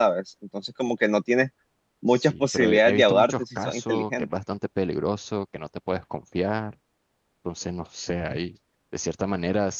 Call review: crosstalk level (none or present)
present